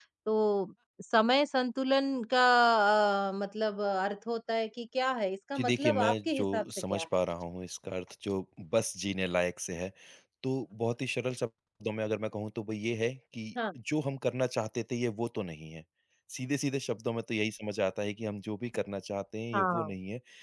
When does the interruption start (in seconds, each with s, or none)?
5.5 s